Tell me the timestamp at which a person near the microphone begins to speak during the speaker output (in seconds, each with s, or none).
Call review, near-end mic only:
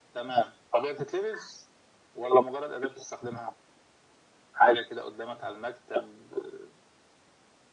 none